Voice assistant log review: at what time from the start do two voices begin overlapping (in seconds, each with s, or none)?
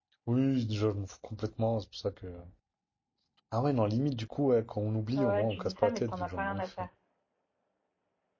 5.2 s